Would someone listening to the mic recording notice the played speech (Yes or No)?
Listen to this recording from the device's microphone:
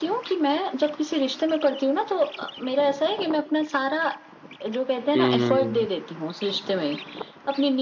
Yes